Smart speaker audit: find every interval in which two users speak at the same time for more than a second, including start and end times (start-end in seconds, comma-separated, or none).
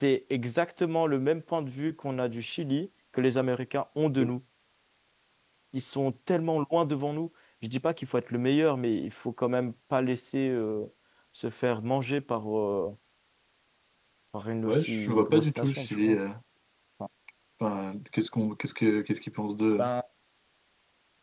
14.6-16.2